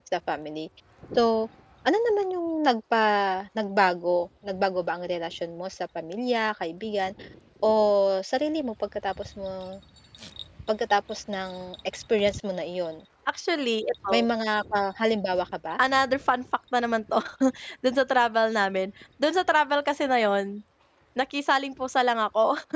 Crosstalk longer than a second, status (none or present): none